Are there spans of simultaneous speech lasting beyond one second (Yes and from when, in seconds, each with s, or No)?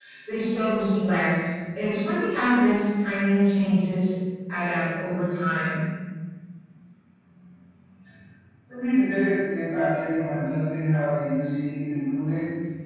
No